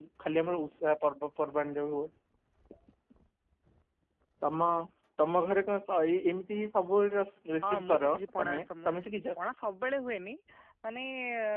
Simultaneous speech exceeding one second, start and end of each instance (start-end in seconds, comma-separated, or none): 7.6-9.2